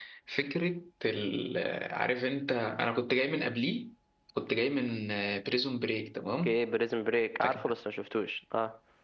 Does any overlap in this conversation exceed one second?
No

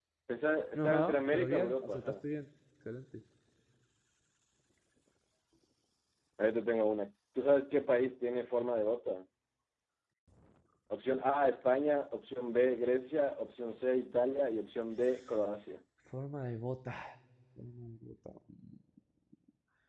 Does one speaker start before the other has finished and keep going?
Yes, from 0.8 s

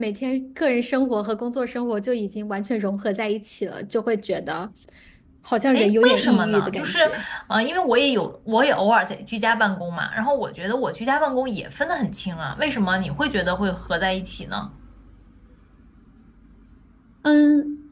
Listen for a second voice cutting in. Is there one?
Yes, from 5.7 s

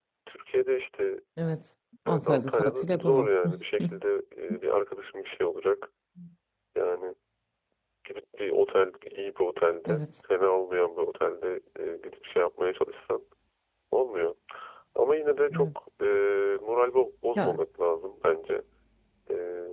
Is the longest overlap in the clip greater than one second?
Yes, from 2.1 s

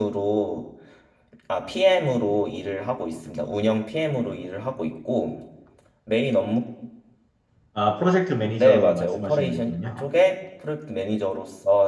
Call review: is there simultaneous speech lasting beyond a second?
Yes, from 8.6 s

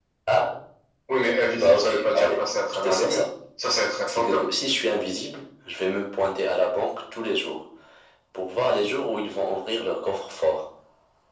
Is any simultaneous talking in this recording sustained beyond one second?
Yes, from 1.5 s

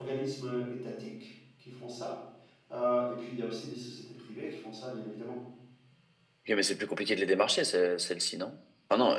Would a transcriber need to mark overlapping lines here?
No

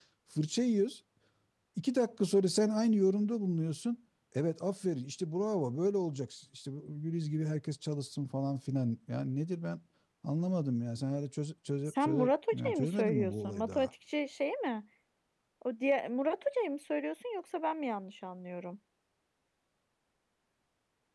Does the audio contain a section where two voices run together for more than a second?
Yes, from 11.9 s

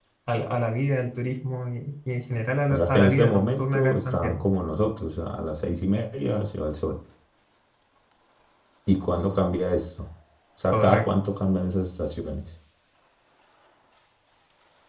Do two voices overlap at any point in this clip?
Yes, from 2.7 s

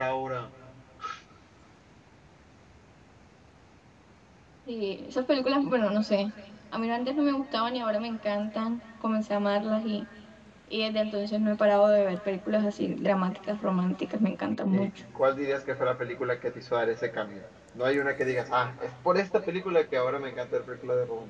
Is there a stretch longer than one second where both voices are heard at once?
No

